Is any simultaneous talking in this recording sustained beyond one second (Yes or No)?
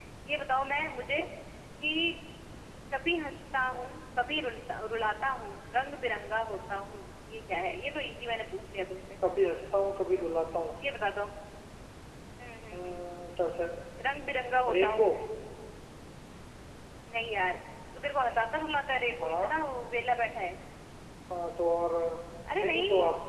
No